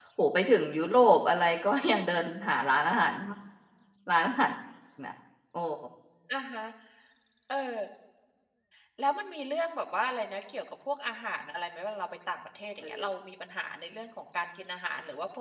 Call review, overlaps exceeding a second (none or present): none